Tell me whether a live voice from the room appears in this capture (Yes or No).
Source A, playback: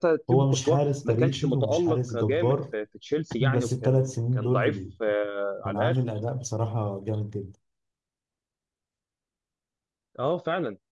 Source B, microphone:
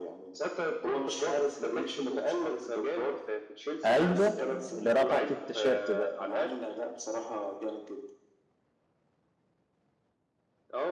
Yes